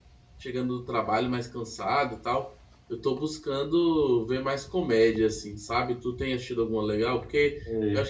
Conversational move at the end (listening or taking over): listening